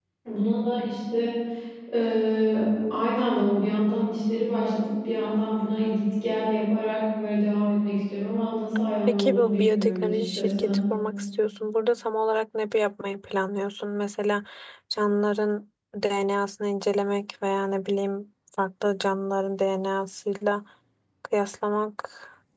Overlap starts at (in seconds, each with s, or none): 9.1 s